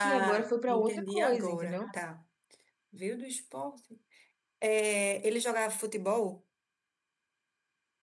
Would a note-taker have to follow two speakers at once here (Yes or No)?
Yes